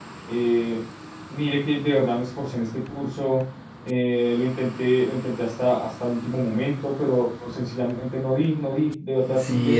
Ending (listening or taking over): taking over